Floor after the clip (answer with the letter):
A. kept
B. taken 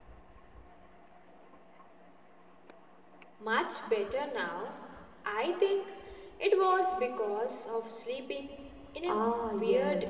B